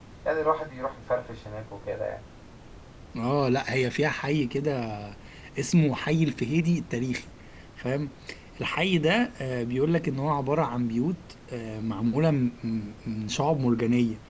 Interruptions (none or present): none